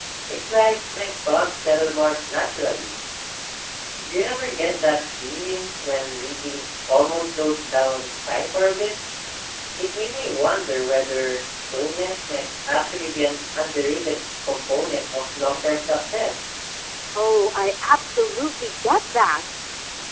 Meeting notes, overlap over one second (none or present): none